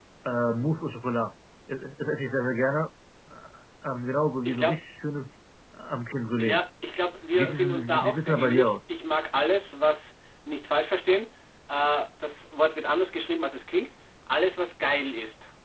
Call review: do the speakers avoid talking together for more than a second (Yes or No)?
No